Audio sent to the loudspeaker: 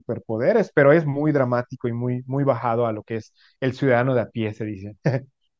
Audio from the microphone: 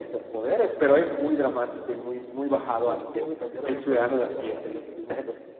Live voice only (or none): ¿Cómo, cómo me cambiaron el color de piel a la, a la sirenita?